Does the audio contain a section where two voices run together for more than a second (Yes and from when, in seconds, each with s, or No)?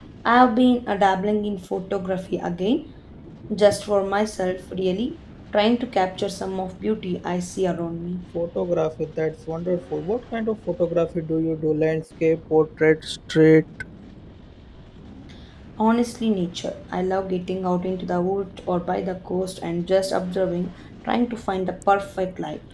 No